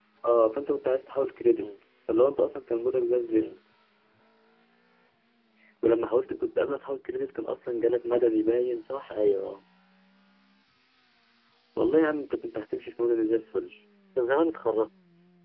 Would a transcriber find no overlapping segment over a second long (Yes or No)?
Yes